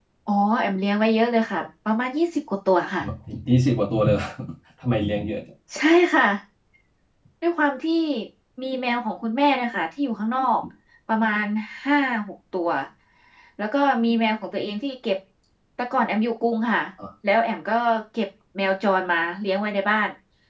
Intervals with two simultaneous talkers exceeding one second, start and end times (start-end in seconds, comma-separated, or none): none